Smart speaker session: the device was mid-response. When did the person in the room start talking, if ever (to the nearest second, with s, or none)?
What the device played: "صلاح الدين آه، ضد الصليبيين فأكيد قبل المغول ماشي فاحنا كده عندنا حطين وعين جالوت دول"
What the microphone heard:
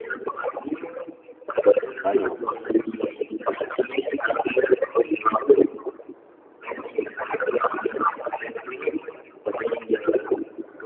2 s